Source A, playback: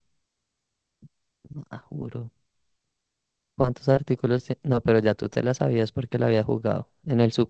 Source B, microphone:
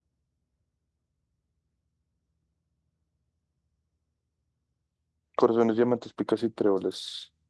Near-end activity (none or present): present